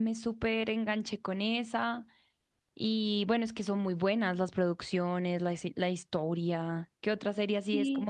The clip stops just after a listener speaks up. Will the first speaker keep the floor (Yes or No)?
No